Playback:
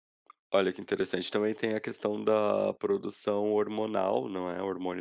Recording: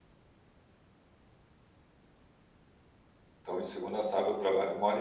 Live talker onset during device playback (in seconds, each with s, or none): 3.4 s